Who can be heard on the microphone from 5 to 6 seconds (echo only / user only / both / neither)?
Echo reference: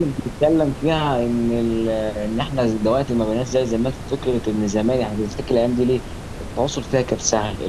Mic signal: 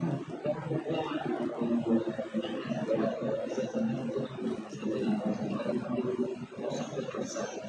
echo only